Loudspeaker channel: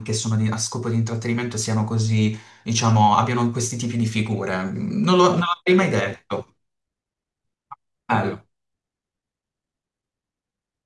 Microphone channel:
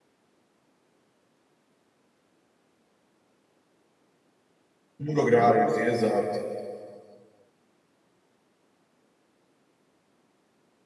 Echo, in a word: none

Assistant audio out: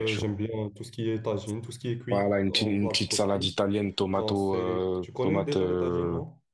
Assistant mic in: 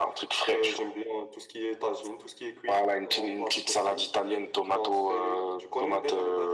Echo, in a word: present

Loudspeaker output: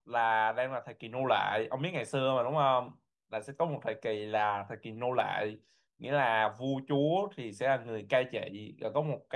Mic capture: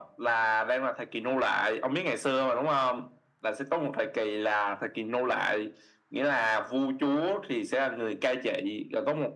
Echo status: present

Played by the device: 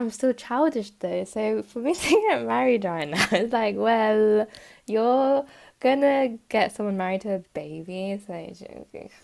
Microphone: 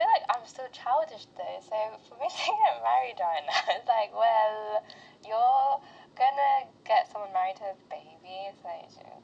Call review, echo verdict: present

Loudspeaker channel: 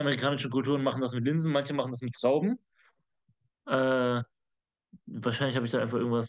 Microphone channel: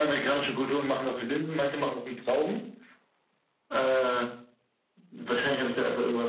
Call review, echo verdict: present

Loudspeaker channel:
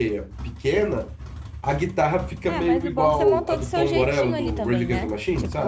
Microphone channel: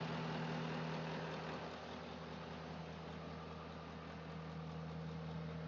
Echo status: none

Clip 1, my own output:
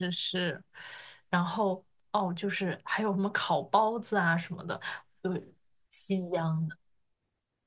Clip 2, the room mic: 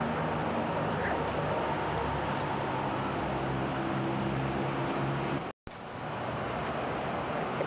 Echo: none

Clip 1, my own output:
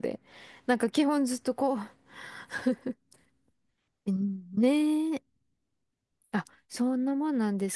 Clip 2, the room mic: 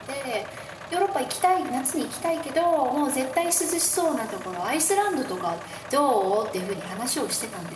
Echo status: none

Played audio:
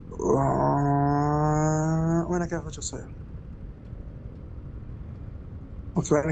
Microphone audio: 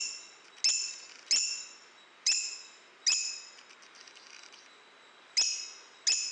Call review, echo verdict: none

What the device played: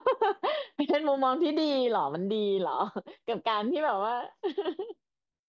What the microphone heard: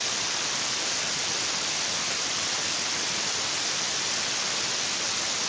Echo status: none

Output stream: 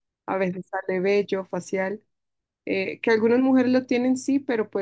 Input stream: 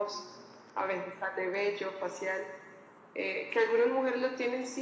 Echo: present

